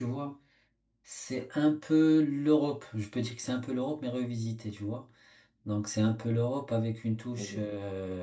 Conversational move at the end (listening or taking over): listening